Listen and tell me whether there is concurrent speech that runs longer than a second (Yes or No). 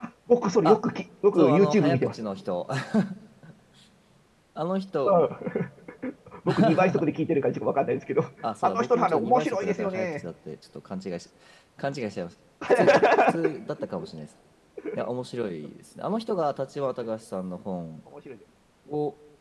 Yes